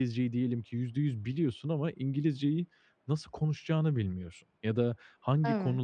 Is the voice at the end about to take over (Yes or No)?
No